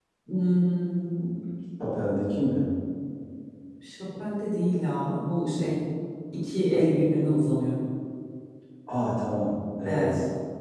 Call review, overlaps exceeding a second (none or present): none